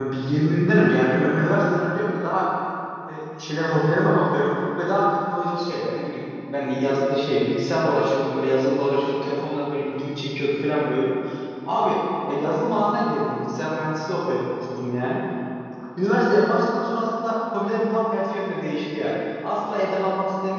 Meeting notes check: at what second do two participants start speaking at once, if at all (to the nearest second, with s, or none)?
none